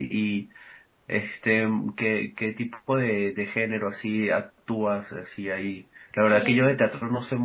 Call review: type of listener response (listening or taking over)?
listening